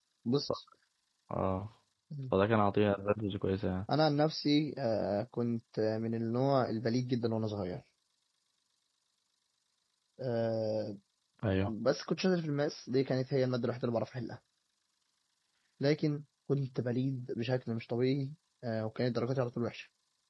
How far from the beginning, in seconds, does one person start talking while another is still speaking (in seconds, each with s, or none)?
none